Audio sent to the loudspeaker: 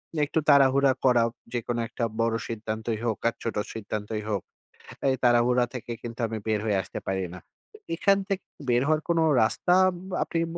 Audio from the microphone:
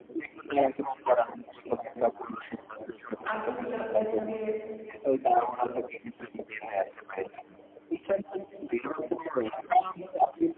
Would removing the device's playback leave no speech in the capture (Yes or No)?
No